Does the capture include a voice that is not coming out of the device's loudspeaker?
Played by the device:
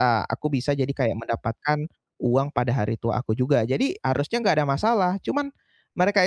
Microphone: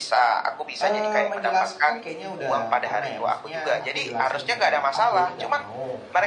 Yes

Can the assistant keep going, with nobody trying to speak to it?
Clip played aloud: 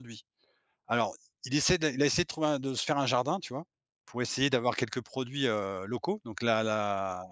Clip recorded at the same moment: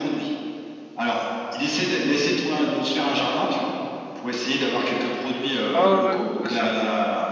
No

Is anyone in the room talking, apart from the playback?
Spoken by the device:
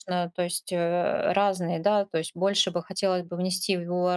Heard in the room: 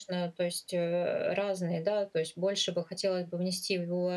No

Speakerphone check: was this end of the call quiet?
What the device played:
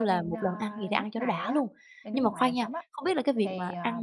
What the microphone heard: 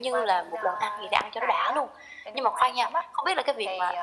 Yes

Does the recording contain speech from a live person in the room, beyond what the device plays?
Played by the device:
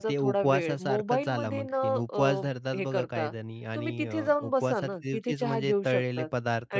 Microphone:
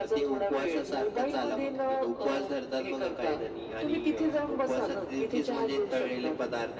No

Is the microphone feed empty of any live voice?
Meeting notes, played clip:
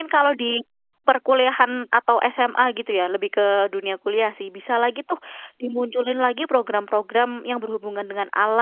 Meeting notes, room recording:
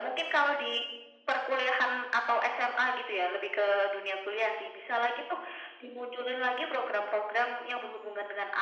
Yes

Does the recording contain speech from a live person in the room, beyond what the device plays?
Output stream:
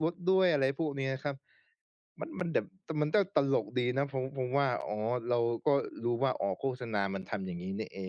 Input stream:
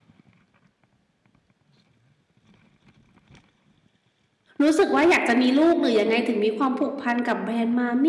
Yes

